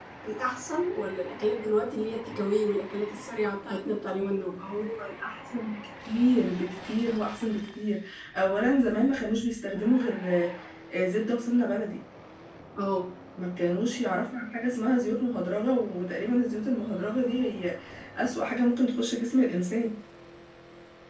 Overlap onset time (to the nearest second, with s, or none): none